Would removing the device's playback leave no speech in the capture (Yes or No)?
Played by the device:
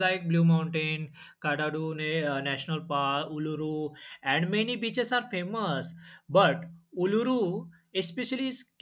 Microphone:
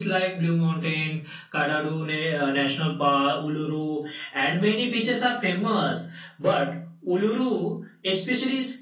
Yes